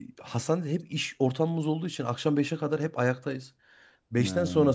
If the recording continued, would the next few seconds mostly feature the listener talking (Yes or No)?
No